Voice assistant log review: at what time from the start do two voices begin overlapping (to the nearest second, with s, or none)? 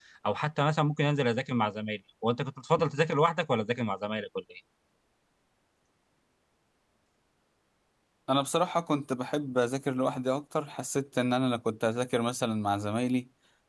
none